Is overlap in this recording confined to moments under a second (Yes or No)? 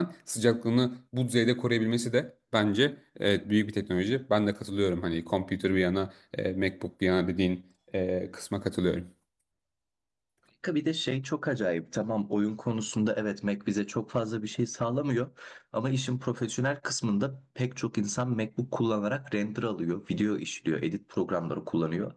Yes